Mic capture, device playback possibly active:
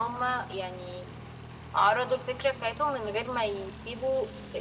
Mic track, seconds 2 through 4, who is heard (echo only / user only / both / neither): echo only